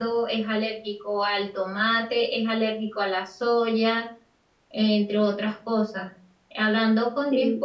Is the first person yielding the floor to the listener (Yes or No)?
No